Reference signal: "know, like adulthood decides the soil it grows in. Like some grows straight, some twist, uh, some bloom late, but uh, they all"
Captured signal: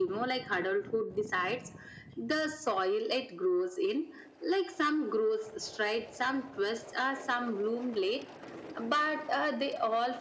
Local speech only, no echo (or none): none